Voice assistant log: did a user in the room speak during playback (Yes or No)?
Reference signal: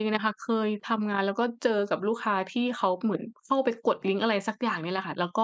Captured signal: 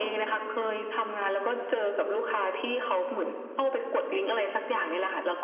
No